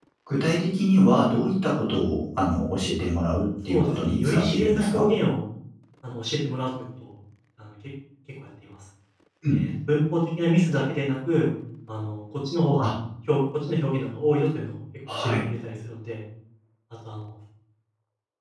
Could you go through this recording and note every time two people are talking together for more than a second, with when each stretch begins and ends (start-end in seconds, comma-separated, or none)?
3.7-5.1